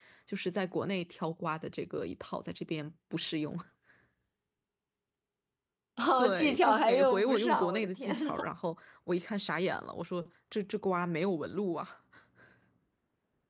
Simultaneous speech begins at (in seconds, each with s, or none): 6.2 s